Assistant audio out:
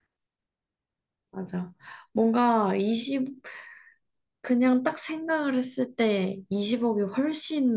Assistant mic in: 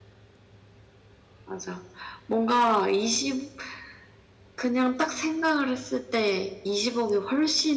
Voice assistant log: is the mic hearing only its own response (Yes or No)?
Yes